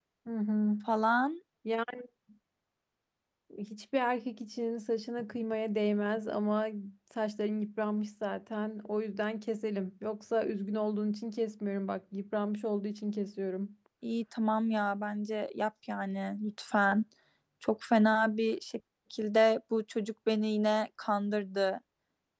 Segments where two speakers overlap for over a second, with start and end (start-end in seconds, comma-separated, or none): none